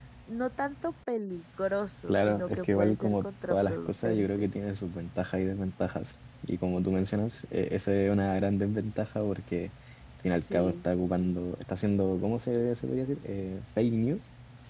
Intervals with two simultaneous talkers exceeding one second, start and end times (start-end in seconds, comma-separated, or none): 2.1-4.5